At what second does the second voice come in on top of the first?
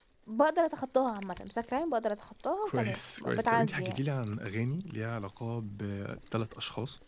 2.6 s

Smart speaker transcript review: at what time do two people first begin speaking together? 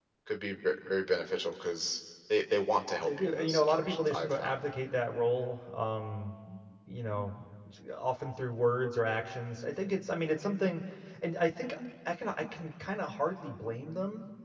3.0 s

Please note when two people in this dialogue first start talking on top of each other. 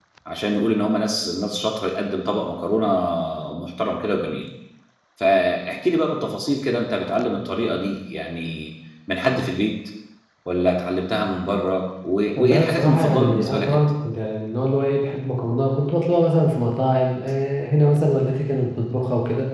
12.3 s

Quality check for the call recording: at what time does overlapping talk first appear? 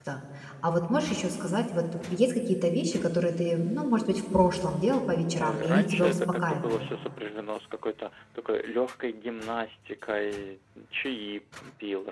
5.3 s

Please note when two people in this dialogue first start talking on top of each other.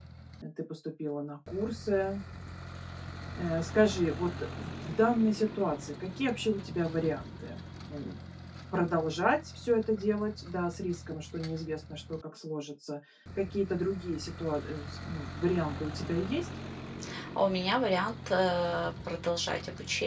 none

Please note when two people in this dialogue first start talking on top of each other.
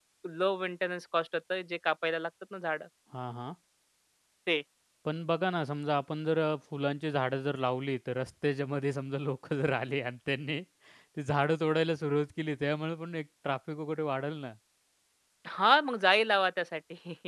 none

